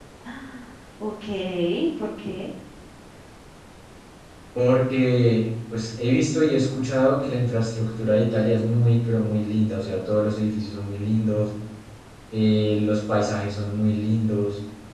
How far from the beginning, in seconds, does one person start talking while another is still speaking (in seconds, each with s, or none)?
none